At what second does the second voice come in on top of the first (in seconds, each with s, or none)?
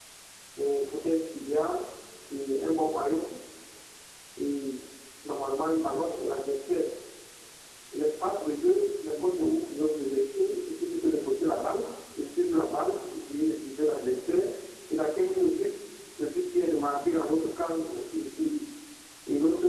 none